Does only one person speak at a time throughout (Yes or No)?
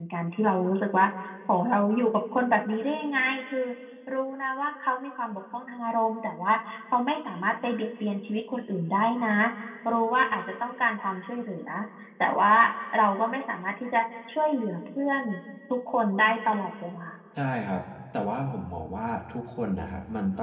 Yes